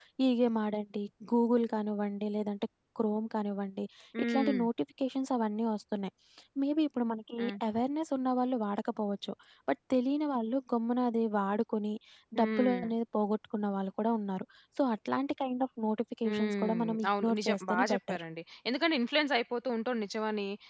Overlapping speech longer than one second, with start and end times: 16.2-18.2

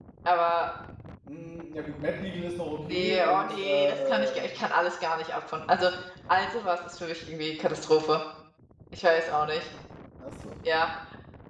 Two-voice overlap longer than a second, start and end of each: 2.8-4.5

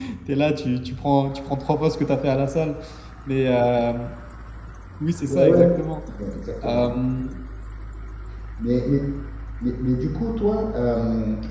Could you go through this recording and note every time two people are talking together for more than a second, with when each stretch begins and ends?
none

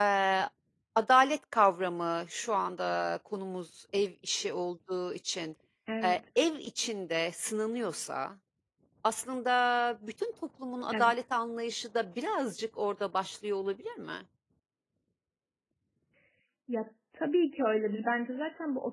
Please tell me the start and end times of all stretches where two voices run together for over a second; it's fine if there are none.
none

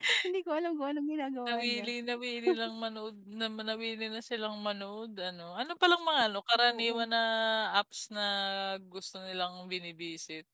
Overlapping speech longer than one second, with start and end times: none

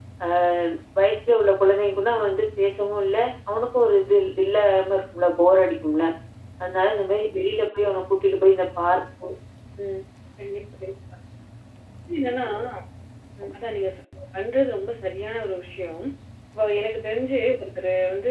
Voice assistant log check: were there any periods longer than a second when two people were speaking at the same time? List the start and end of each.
none

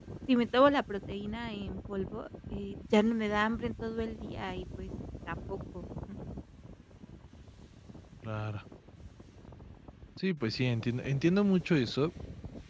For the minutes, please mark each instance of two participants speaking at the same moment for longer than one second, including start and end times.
none

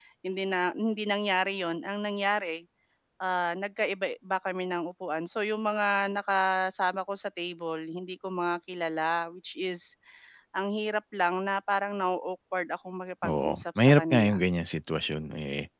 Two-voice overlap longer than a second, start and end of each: 13.2-14.5

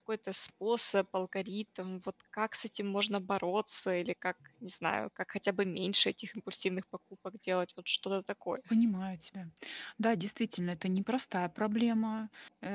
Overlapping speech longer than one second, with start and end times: none

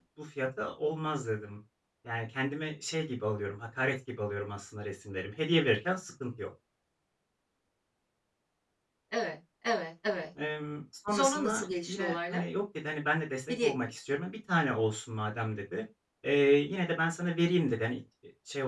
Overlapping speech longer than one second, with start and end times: 11.1-12.4

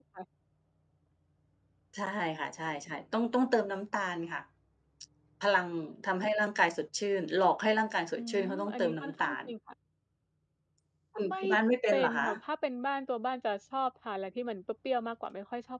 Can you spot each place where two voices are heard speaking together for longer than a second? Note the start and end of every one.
8.2-9.4

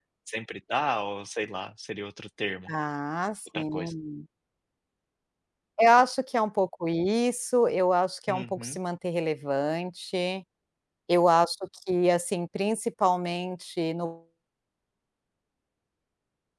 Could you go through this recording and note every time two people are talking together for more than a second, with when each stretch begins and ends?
none

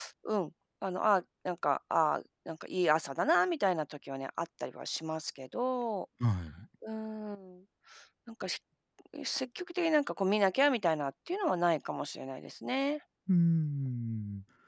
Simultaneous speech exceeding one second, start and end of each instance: none

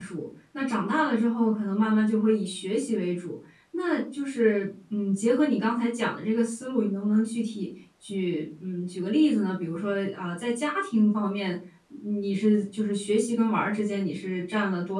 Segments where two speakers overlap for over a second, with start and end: none

